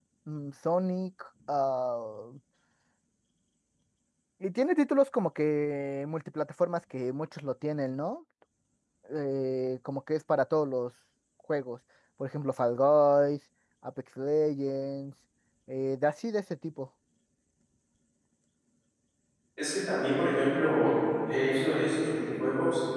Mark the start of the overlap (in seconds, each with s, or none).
none